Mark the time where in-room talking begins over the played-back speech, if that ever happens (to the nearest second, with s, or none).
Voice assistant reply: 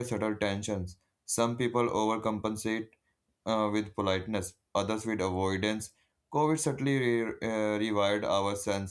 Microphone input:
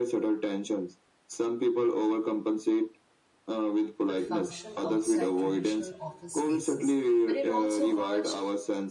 4 s